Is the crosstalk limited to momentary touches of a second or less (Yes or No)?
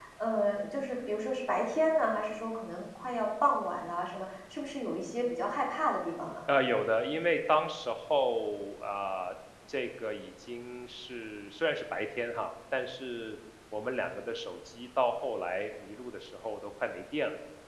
Yes